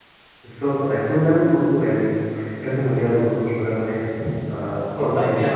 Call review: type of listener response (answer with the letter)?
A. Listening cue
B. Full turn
B